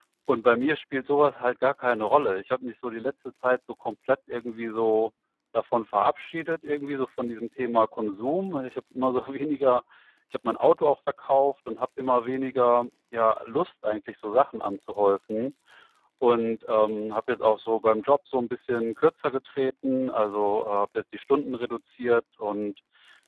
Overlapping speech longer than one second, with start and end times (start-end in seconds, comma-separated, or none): none